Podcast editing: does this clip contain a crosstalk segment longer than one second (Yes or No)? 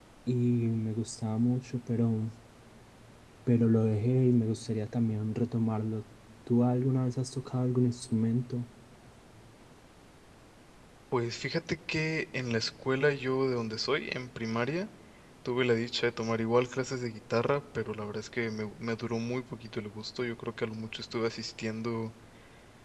No